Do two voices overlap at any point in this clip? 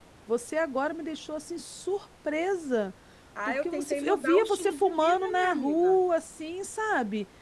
Yes, from 3.5 s

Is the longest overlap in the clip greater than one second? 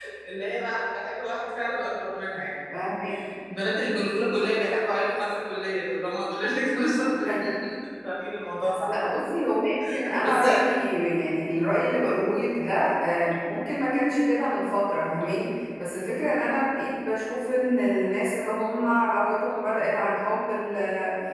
No

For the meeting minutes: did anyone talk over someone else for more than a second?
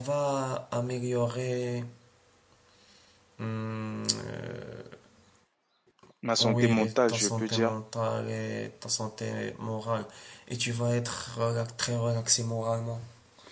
Yes, from 6.4 s

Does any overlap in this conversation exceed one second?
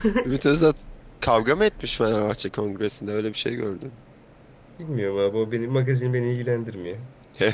No

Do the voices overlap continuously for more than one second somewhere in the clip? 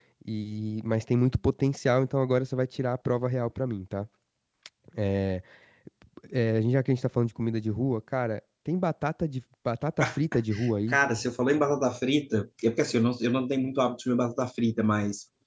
No

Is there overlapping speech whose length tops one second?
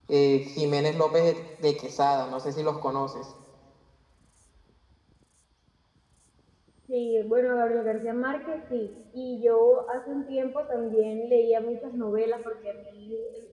No

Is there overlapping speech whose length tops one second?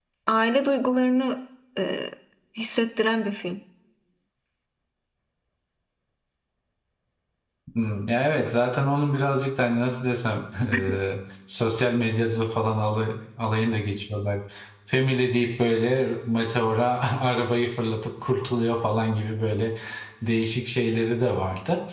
No

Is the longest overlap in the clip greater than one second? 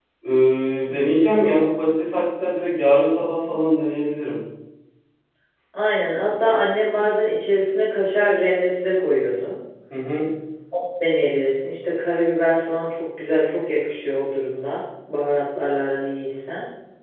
No

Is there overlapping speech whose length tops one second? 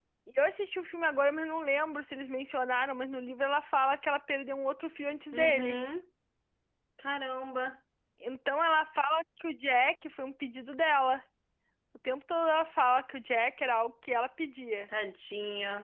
No

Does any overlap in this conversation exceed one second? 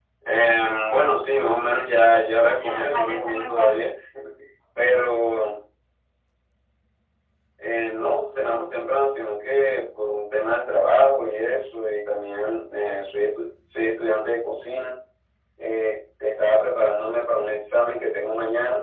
Yes, from 2.5 s

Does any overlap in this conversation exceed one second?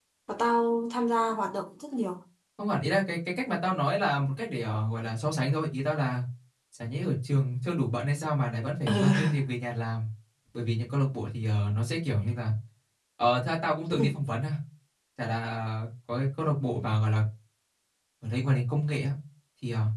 No

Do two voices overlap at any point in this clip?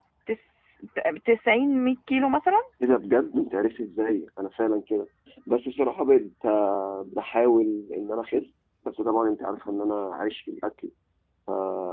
No

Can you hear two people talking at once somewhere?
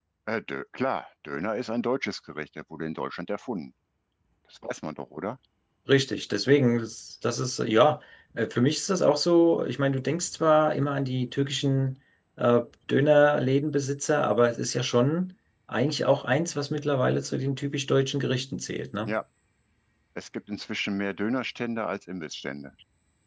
No

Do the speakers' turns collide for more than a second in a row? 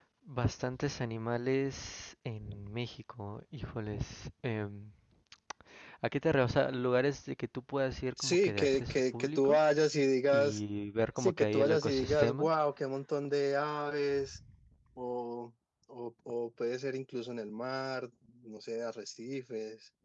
Yes, from 8.2 s

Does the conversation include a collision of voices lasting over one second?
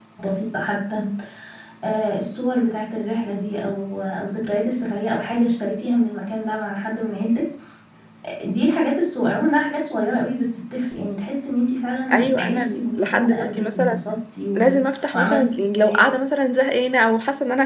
Yes, from 12.1 s

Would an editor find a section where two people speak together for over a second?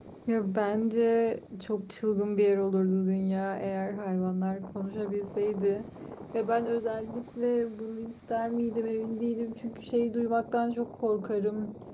No

